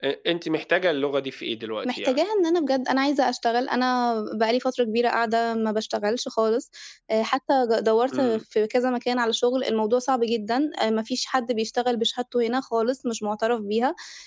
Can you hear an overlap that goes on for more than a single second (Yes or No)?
No